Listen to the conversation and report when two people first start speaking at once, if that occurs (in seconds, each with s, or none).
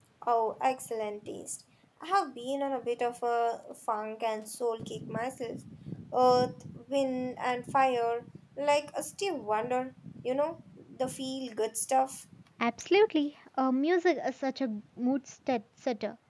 none